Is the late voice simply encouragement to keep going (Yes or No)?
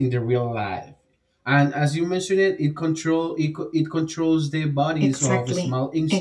No